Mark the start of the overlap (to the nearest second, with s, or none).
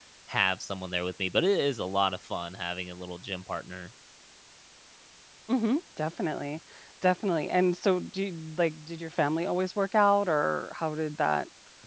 none